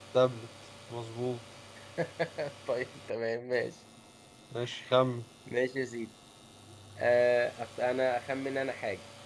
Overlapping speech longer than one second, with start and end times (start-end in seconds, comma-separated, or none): none